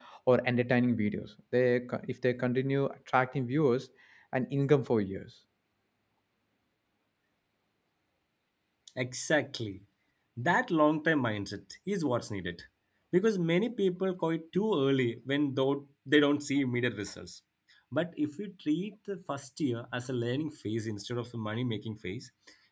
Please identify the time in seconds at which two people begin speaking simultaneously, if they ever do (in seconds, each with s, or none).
none